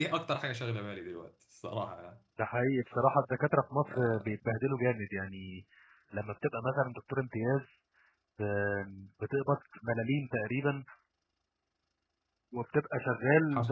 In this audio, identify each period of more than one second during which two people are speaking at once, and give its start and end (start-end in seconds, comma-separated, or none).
none